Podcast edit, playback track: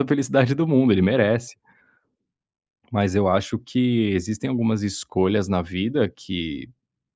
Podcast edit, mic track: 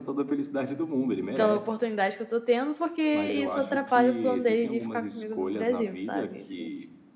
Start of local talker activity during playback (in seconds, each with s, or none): 1.3 s